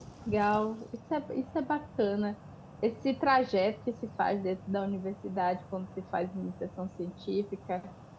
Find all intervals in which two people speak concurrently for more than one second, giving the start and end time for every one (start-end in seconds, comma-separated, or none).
none